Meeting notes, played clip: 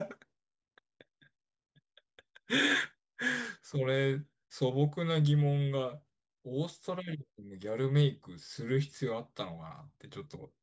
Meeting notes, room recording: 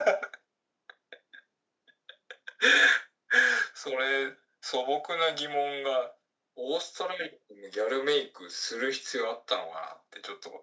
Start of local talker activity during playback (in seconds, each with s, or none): none